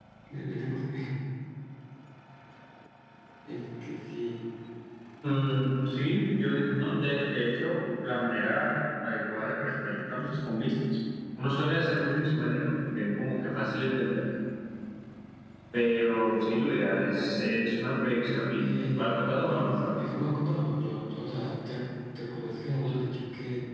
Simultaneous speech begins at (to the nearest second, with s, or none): 19 s